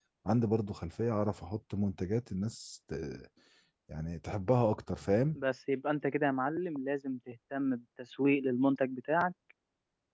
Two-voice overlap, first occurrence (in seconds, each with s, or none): none